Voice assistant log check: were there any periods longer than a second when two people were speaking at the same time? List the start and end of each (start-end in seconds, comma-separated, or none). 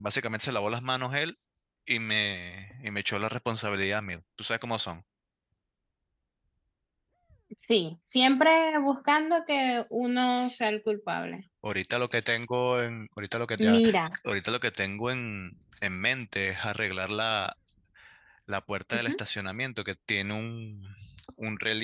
none